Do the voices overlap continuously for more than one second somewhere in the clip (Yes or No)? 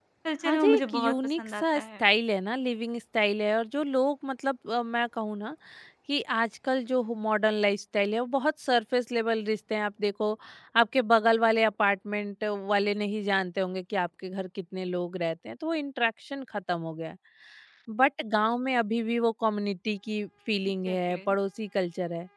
Yes